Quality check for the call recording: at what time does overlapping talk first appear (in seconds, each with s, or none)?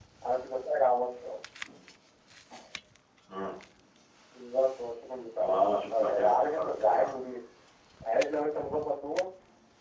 5.4 s